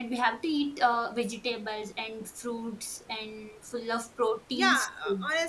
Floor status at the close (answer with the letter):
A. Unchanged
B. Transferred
B